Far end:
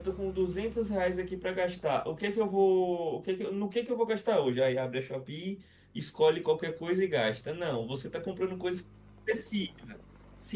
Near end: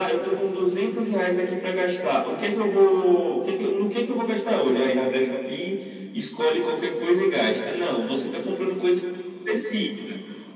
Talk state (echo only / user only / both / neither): echo only